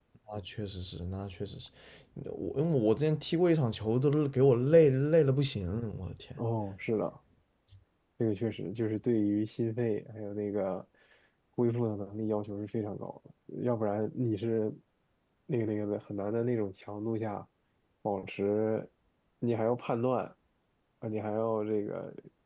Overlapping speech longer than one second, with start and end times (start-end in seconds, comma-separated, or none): none